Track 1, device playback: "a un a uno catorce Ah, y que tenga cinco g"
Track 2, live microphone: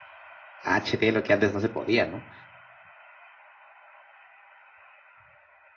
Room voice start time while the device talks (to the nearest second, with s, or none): 1 s